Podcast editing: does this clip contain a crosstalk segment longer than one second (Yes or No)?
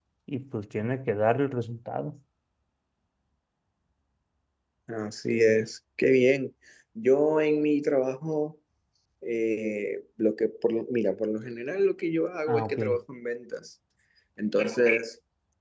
No